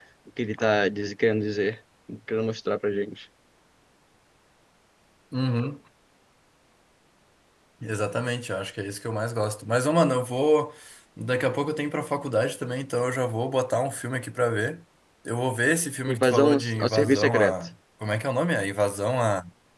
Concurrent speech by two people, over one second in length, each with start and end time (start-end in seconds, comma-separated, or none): 16.1-17.5